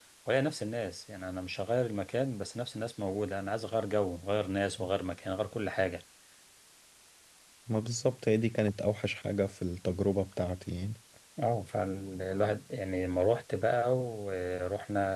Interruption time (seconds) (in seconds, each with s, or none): none